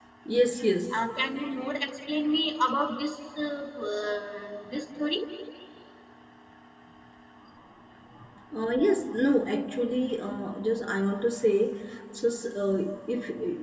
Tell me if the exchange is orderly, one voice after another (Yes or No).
Yes